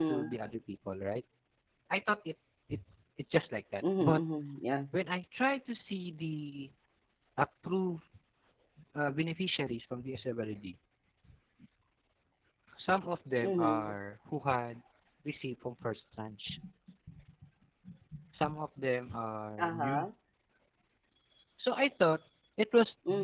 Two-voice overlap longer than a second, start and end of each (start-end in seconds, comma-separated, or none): none